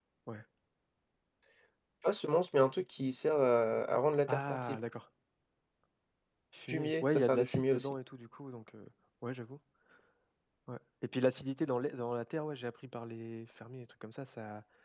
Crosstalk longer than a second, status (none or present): present